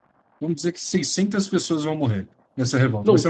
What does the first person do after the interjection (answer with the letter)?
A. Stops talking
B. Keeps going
A